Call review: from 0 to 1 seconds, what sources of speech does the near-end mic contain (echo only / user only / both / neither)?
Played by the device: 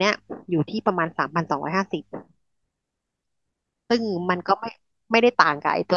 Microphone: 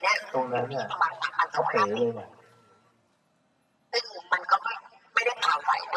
both